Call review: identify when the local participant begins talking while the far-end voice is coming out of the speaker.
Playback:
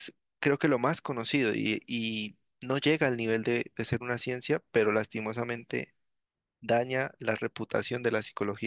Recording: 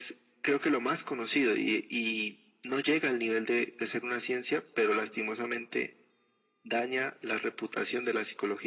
none

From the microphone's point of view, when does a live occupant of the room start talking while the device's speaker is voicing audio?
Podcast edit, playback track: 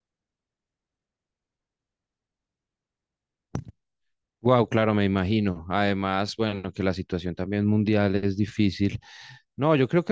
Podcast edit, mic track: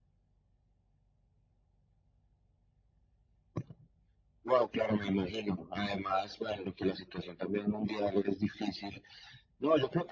none

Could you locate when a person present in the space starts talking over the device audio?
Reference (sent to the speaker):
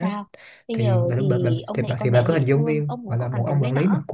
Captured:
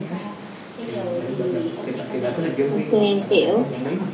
2.7 s

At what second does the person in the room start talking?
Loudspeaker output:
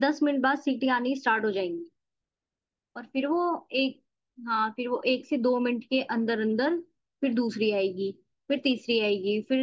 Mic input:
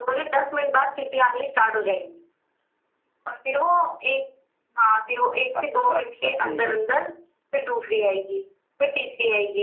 5.5 s

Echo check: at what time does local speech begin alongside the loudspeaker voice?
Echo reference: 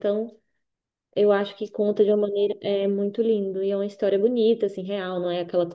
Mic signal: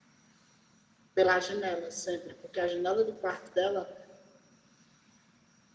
1.1 s

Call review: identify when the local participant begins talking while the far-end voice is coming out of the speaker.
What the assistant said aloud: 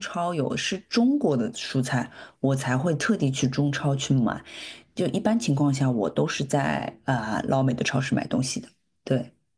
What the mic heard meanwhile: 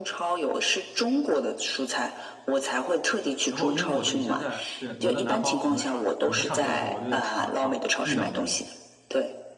3.5 s

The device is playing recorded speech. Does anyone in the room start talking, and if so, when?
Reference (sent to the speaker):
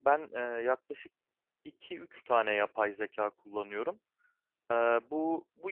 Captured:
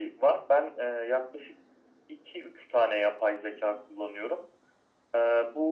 none

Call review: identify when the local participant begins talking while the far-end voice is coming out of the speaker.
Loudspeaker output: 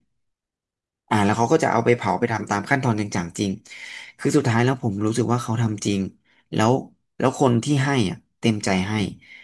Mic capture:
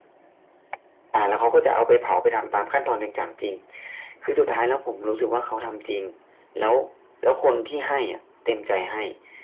none

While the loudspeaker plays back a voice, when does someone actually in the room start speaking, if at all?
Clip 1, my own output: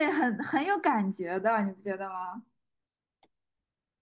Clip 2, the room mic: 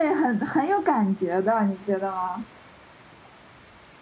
none

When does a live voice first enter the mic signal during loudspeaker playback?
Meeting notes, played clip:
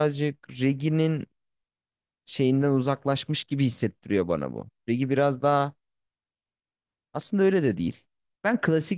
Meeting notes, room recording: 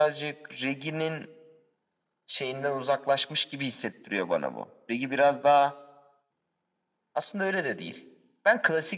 none

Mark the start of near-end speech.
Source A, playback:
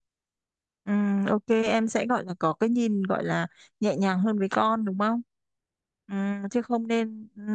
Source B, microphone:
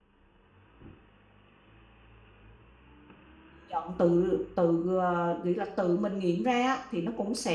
3.7 s

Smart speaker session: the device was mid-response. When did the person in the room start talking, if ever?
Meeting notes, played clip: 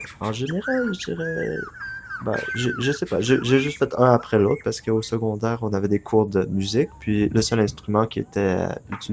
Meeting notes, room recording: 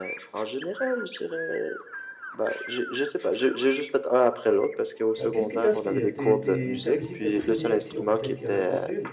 5.2 s

